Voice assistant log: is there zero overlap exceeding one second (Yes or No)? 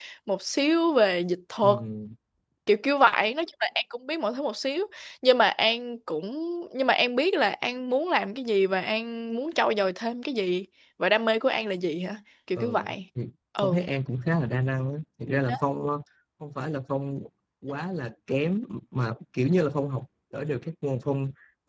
Yes